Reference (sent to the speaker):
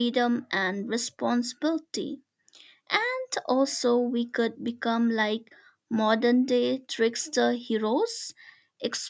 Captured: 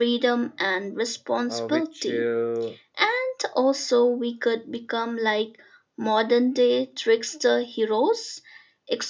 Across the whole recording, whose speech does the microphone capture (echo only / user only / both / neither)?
both